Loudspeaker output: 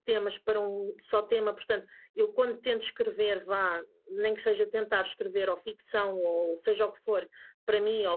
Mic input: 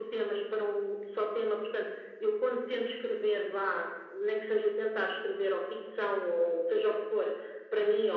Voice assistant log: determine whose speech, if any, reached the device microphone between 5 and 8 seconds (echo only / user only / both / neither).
echo only